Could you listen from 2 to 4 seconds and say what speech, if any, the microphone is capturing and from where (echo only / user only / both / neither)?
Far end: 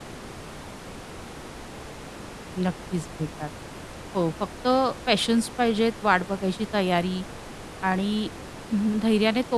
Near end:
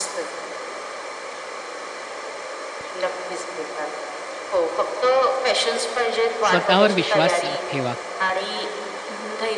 echo only